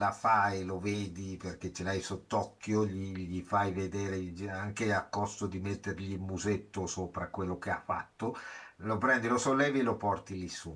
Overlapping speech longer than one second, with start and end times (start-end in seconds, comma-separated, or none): none